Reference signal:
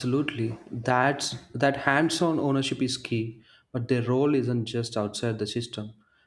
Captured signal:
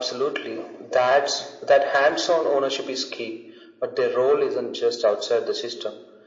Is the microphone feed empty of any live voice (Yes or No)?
Yes